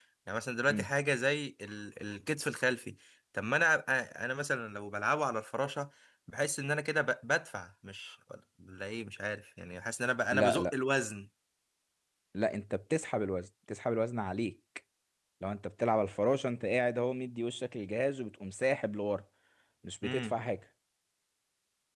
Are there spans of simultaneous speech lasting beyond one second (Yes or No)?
No